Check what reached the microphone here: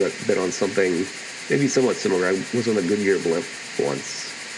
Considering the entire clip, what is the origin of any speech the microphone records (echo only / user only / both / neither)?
echo only